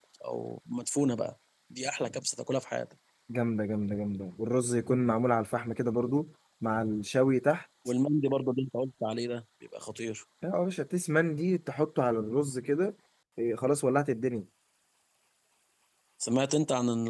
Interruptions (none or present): none